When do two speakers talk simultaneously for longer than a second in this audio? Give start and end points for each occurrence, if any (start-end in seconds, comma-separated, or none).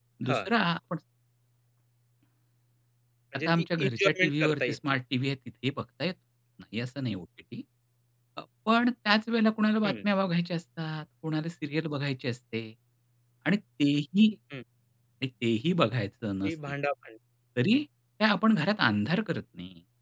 3.4-5.0